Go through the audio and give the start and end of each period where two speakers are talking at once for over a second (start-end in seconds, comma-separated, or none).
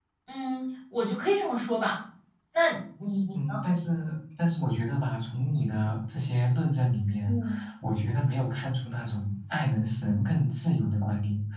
none